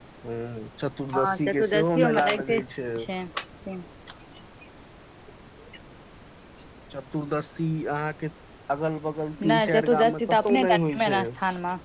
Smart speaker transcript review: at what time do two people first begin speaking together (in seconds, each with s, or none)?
1.1 s